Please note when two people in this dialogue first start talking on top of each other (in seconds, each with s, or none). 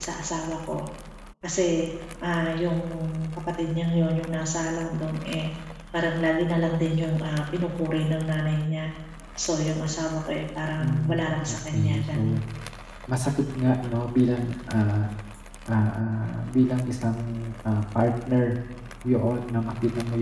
10.8 s